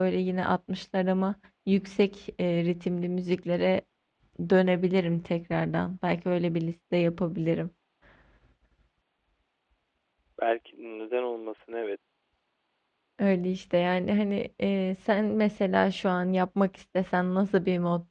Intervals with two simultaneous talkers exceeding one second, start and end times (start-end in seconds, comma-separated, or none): none